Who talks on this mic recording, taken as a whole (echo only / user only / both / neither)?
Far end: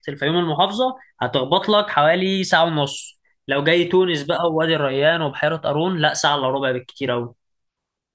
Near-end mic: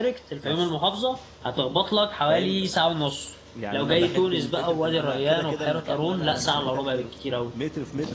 both